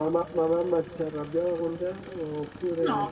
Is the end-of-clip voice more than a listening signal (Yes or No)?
Yes